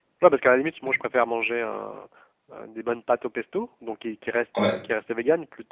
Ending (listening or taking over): listening